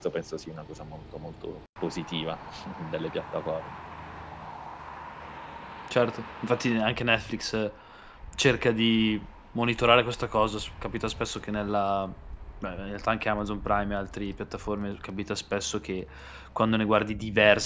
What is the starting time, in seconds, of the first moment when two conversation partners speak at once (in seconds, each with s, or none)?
none